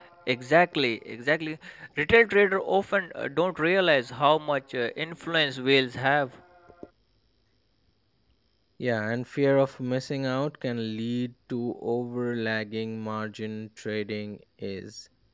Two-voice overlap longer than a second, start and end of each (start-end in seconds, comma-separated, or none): none